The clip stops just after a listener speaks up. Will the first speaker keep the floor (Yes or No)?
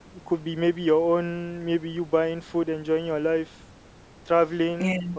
Yes